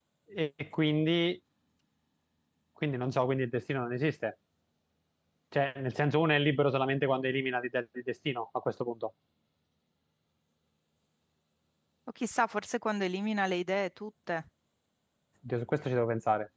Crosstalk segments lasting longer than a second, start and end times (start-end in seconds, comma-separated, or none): none